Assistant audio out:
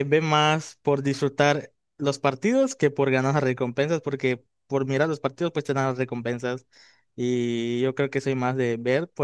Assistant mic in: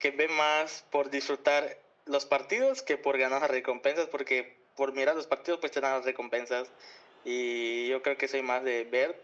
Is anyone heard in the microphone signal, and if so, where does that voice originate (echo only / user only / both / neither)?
echo only